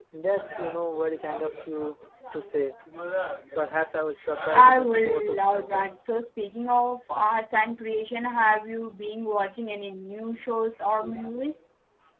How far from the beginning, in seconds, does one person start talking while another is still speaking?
5 s

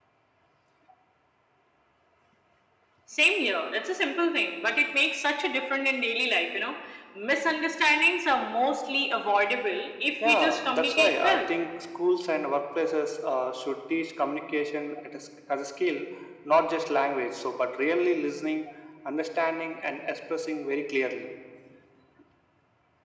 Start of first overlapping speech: 10 s

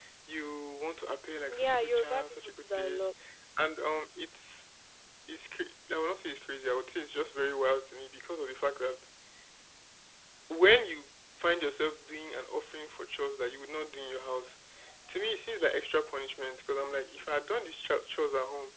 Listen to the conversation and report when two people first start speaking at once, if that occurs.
1 s

